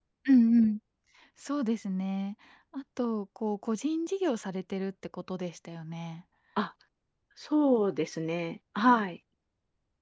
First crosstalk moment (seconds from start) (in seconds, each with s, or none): none